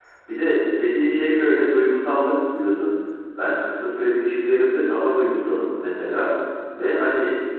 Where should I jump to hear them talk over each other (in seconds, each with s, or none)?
none